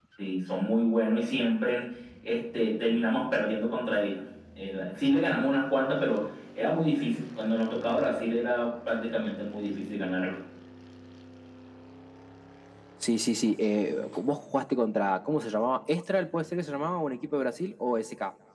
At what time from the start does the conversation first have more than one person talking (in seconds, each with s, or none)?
none